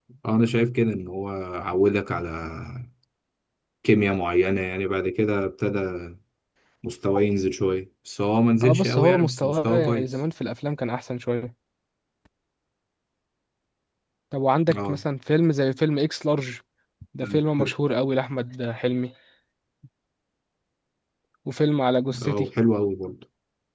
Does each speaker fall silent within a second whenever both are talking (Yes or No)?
No